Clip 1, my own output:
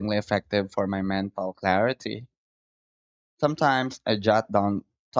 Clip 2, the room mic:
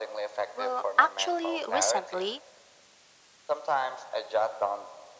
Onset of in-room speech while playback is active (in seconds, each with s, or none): 0.5 s